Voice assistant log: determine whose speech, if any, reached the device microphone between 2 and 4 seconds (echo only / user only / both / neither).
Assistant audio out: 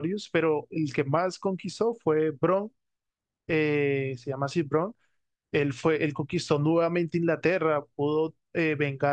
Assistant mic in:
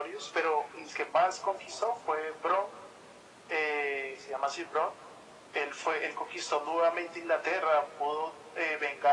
echo only